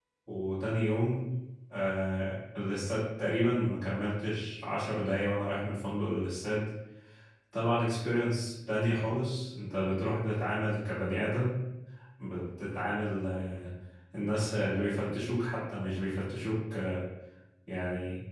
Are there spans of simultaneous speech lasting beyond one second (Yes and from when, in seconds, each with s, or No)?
No